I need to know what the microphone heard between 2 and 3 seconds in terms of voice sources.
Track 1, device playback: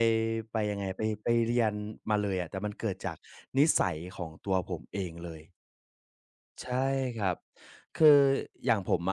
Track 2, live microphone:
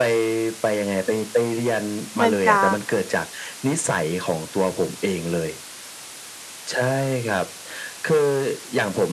both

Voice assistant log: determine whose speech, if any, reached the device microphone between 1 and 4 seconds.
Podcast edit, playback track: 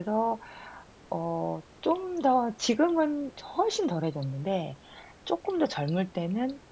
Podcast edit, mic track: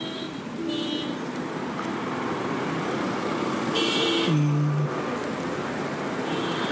neither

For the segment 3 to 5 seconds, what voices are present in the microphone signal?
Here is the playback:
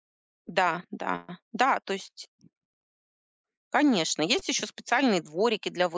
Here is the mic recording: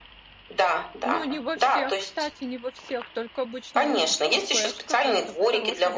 both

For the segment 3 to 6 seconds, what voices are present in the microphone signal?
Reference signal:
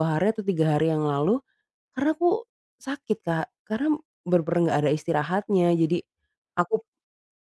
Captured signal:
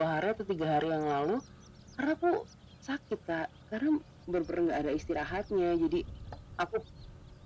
echo only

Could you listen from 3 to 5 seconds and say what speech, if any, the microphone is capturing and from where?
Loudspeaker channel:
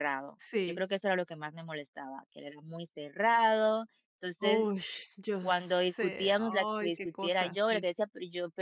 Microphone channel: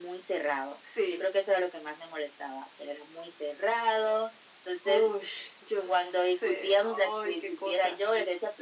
echo only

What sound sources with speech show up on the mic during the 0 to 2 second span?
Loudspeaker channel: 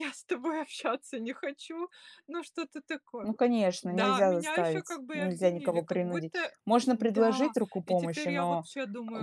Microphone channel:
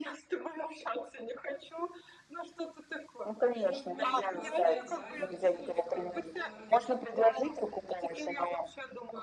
echo only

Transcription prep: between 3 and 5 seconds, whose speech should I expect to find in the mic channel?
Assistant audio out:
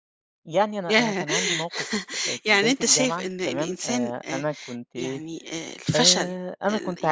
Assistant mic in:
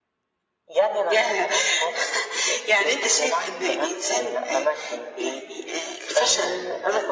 echo only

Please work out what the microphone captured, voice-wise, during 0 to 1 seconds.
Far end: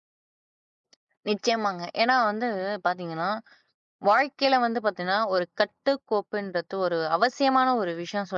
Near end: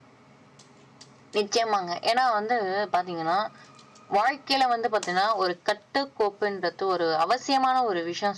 neither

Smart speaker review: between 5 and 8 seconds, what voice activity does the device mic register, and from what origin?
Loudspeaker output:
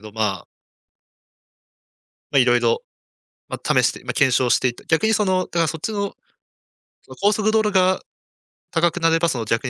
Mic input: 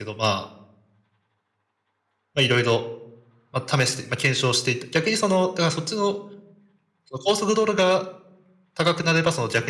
echo only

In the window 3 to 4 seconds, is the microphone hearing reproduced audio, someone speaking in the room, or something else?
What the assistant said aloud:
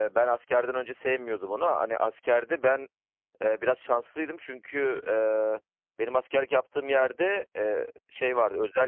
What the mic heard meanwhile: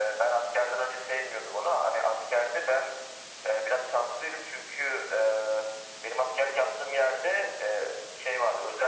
echo only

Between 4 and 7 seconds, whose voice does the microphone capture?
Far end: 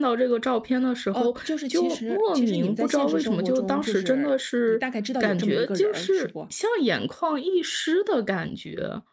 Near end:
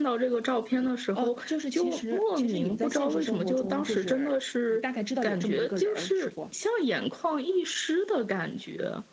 echo only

